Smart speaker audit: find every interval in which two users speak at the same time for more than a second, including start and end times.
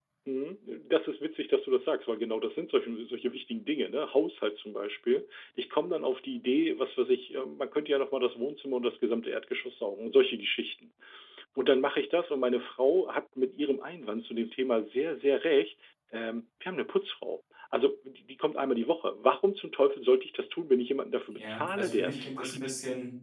21.4-22.6

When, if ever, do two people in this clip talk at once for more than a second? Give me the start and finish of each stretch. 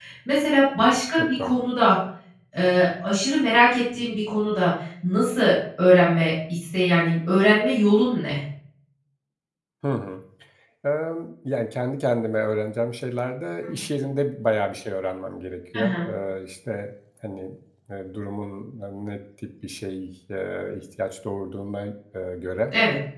none

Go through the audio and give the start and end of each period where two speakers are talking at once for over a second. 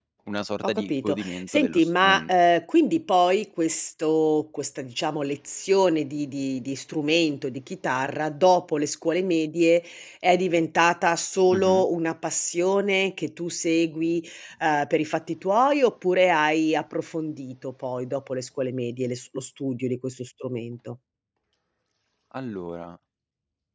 0.6-2.3

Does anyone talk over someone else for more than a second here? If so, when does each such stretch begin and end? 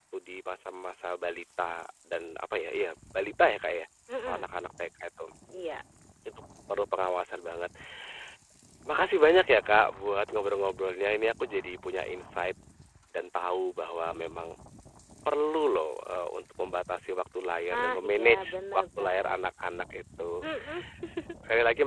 17.7-19.4

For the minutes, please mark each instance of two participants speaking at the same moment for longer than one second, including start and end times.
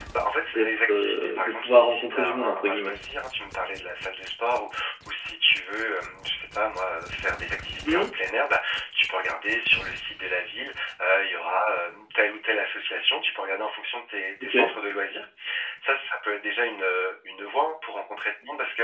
0.5-2.9

